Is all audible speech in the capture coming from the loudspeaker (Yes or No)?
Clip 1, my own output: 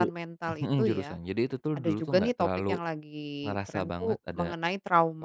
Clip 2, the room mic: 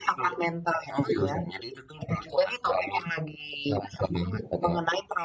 Yes